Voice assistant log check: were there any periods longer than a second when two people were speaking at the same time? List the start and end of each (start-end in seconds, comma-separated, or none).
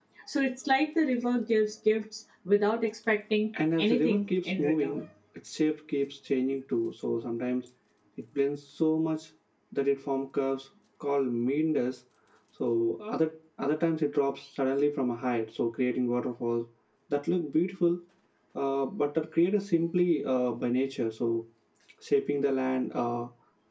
3.8-5.0